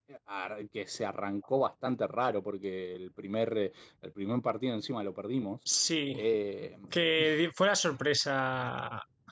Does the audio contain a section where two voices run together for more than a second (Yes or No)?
No